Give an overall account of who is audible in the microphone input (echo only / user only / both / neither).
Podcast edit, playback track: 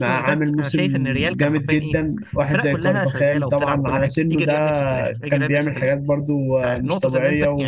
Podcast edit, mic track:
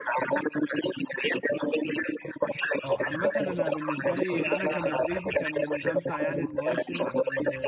both